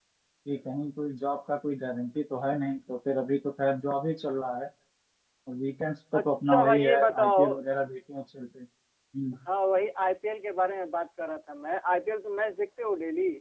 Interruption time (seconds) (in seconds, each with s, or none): 6.2 s